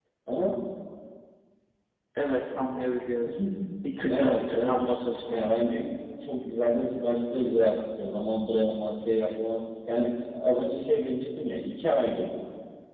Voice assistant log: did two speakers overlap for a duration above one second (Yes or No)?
Yes